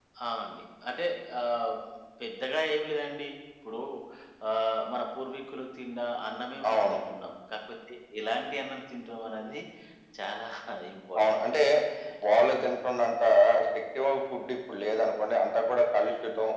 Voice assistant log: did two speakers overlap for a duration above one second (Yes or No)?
No